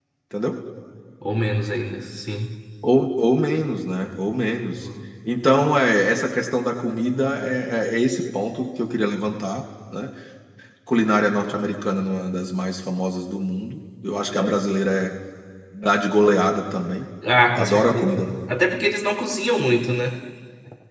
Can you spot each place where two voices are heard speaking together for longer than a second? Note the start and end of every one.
17.5-18.7

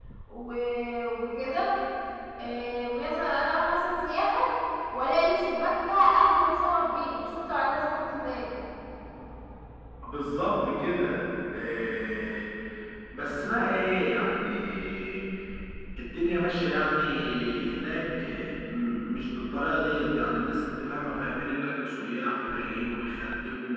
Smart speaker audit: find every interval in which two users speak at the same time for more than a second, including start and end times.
none

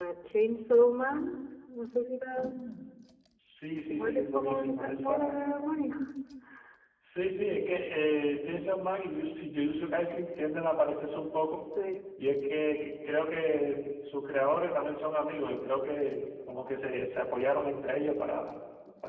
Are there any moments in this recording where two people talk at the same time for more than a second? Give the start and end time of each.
3.9-5.3

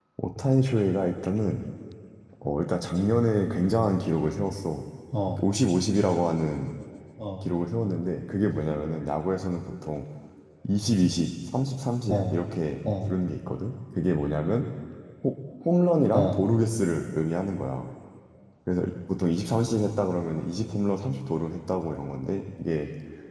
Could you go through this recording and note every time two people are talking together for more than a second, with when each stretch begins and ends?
none

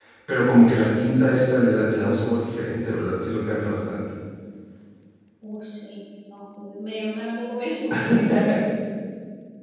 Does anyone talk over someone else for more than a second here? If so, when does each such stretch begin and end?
none

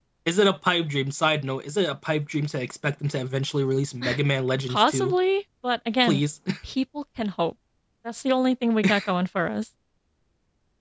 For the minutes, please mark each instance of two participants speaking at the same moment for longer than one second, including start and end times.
none

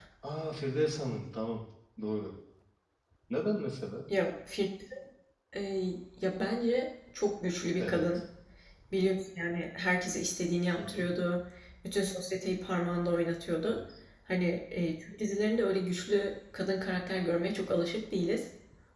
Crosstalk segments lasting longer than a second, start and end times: none

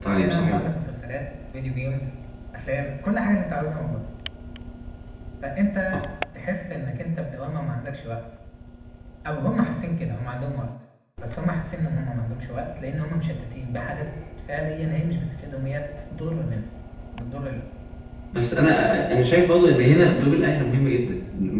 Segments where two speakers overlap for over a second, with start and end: none

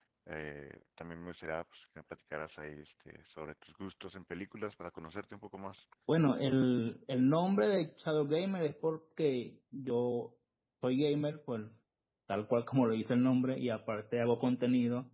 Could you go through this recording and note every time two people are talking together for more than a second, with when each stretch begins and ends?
none

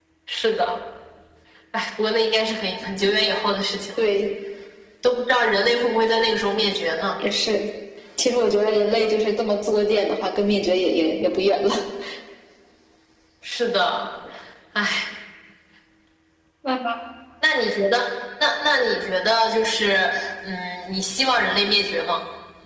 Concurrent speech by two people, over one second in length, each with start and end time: none

